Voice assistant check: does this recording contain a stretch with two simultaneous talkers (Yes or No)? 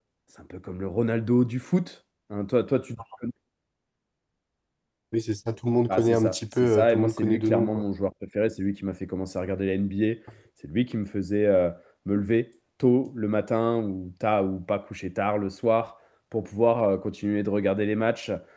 Yes